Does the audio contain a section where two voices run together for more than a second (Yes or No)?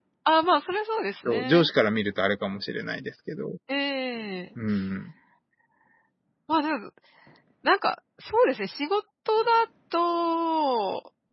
No